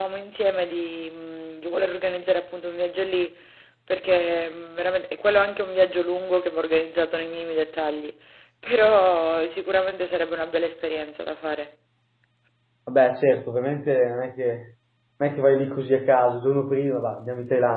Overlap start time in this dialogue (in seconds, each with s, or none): none